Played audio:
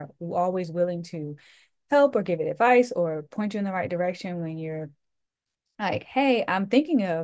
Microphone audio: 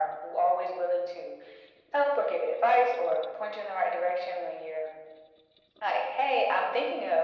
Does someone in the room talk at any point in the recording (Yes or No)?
No